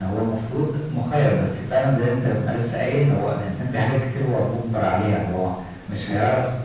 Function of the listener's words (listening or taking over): listening